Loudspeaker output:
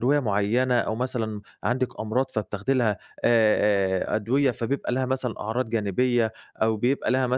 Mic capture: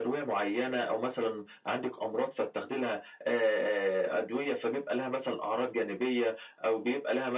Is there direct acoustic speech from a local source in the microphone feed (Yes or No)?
No